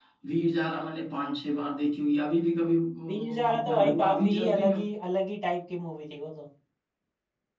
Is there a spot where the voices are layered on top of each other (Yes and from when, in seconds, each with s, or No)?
Yes, from 3.1 s